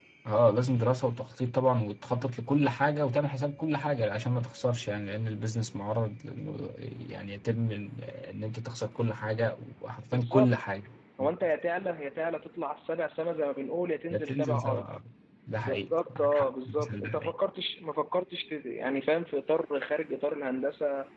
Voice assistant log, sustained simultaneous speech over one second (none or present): present